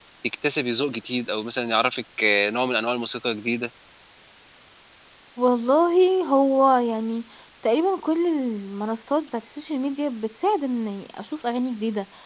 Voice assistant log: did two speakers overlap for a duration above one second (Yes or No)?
No